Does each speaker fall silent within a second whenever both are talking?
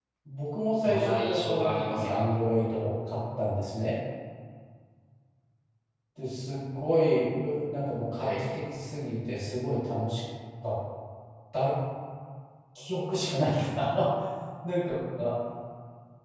No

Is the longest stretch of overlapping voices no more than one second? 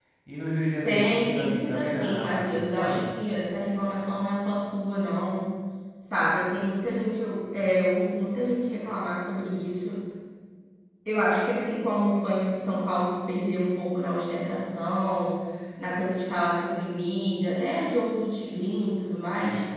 No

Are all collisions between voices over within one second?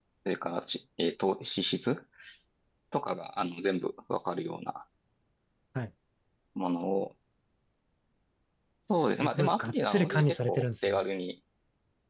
No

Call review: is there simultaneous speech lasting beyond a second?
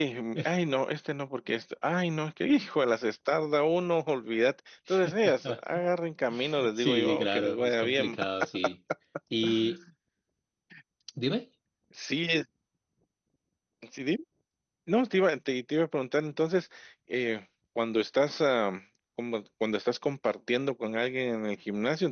Yes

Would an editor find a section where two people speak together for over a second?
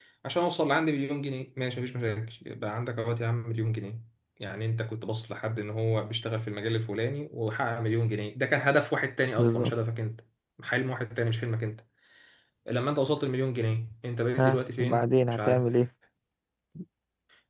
Yes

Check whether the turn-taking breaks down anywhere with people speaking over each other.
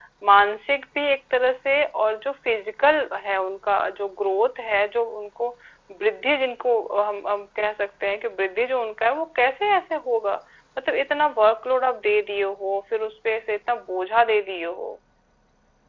No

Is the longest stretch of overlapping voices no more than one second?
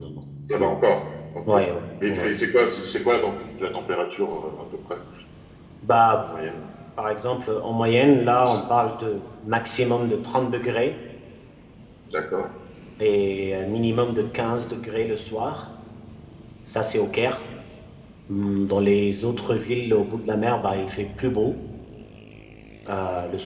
Yes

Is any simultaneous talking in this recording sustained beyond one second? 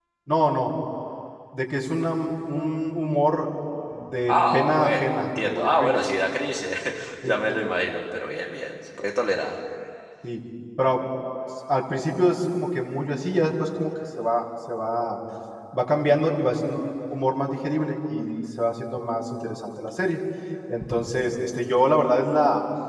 Yes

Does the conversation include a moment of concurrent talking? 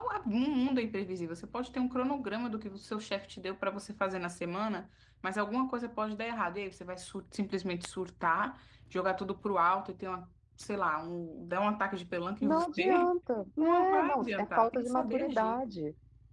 Yes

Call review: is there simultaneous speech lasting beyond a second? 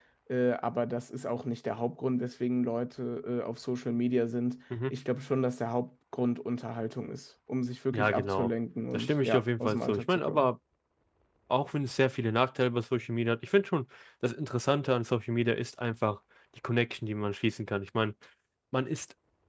Yes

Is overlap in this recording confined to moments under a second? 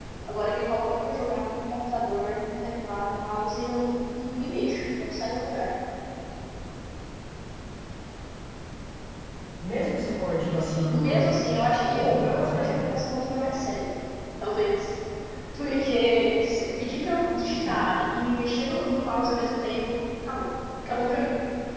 No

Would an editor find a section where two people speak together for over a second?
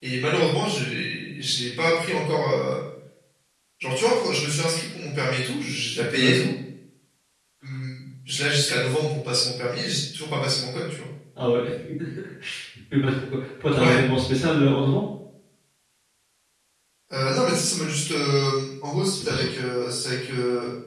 No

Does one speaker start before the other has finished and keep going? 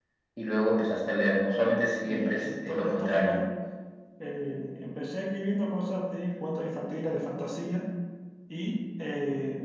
Yes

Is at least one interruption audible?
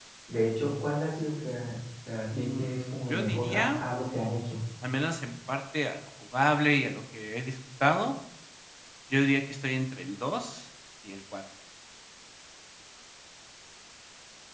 Yes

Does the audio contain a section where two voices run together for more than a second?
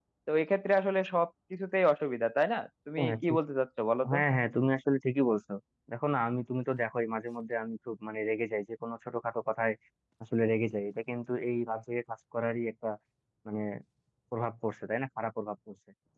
No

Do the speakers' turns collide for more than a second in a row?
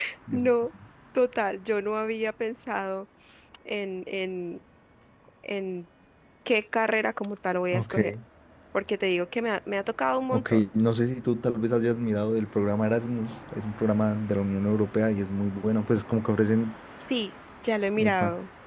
No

